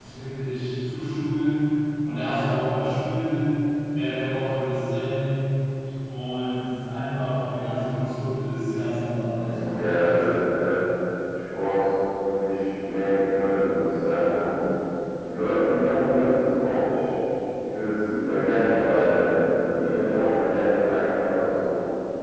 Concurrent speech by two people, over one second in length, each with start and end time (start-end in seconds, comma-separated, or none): 9.3-10.6